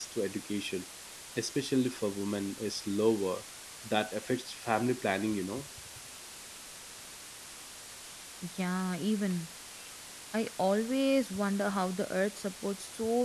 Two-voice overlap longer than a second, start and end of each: none

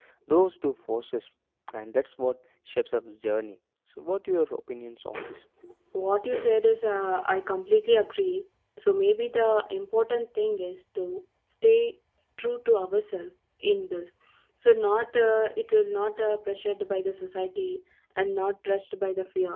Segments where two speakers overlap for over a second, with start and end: none

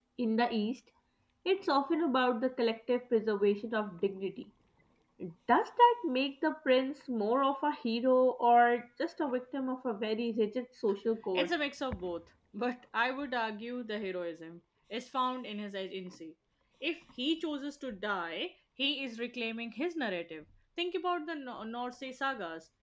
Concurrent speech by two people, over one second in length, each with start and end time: none

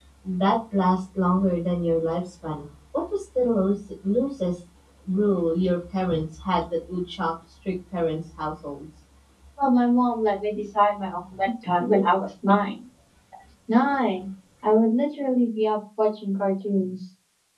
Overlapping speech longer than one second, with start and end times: none

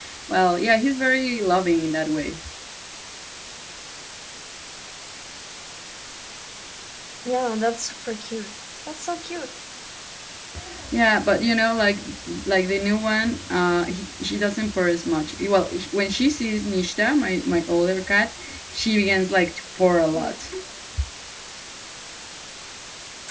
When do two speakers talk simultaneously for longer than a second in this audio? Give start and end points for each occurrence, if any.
none

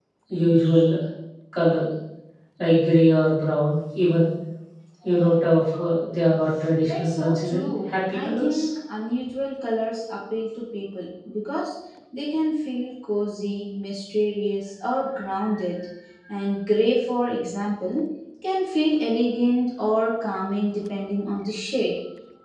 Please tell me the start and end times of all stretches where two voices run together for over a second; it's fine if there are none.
6.8-8.7

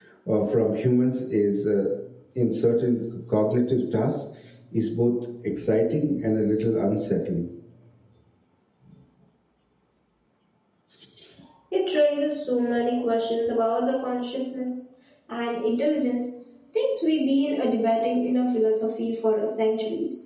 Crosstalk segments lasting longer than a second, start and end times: none

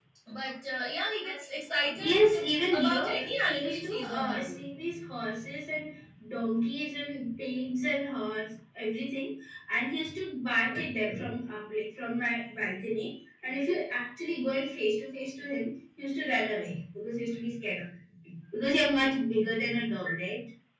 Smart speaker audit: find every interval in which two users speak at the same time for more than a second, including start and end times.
2.0-4.6

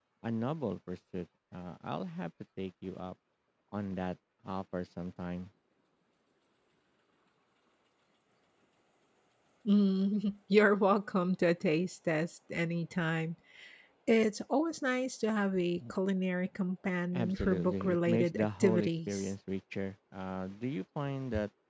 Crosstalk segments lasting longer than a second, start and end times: 17.1-19.3

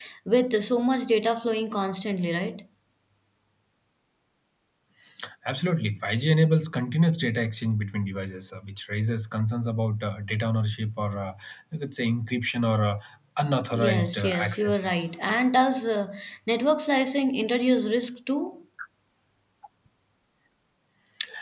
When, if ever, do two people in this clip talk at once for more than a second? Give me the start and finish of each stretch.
13.7-15.0

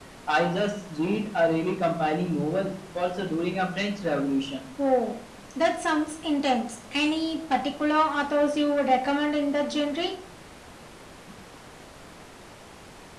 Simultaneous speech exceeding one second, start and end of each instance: none

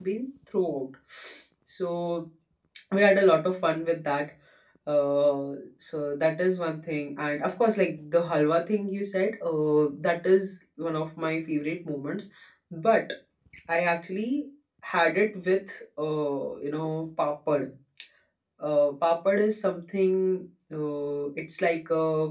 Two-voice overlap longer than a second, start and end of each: none

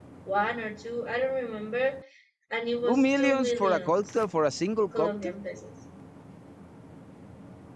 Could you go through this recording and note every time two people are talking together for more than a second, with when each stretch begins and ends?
2.9-4.2

